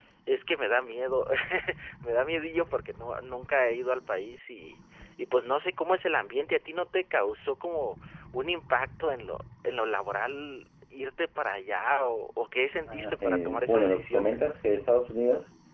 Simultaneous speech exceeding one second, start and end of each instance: 12.9-14.4

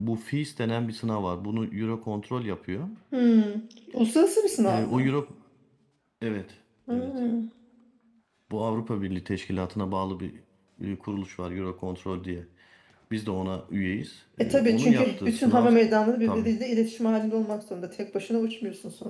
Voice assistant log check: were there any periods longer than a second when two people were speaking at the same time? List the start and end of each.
14.4-15.7

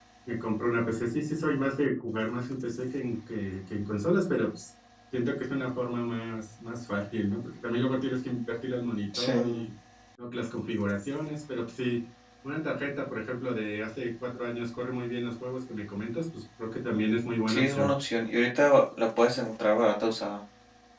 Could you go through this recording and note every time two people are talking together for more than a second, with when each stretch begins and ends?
none

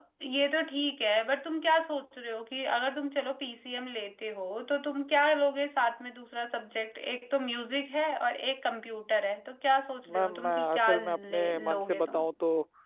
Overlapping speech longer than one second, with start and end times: 10.1-12.3

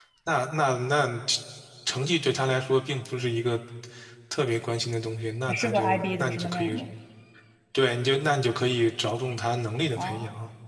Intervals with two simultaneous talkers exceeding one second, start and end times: 5.5-6.7

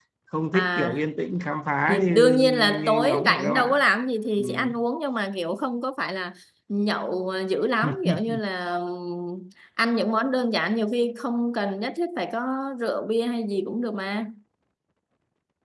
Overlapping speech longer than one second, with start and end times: 1.9-3.8

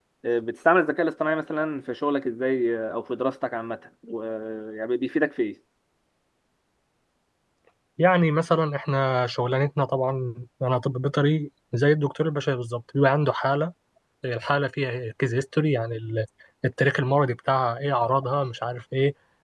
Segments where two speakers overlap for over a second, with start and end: none

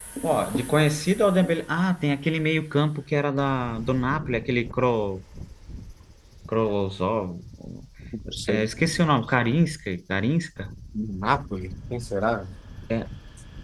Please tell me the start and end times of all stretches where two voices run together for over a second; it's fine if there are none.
none

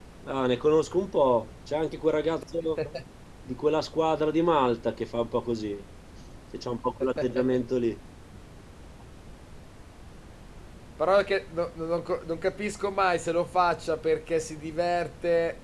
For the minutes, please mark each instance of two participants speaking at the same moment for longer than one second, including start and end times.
none

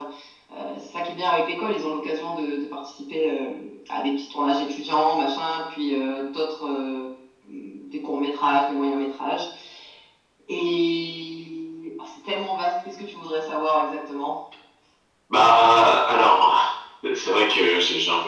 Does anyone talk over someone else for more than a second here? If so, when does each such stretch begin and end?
none

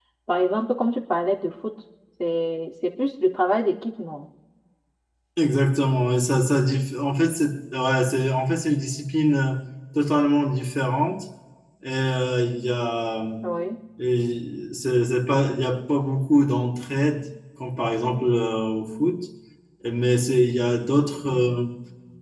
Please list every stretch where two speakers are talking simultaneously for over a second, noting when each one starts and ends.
none

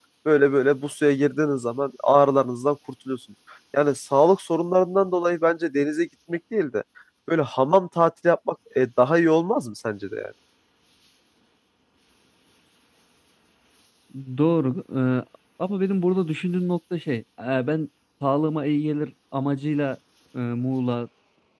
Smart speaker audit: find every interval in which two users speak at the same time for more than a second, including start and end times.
none

